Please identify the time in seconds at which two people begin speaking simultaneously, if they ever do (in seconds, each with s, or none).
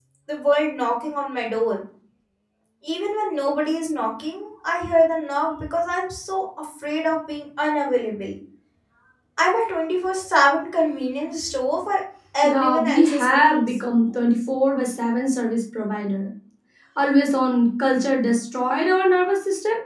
12.5 s